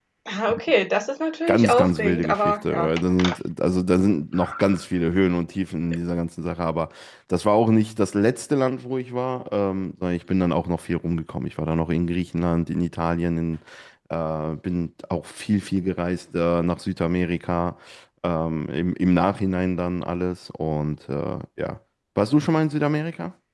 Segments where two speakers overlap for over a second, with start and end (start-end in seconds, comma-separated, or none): 1.5-2.9